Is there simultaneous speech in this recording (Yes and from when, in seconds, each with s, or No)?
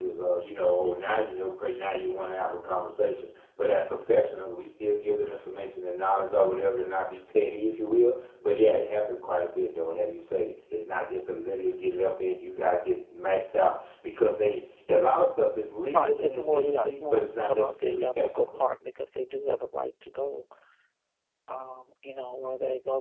Yes, from 15.9 s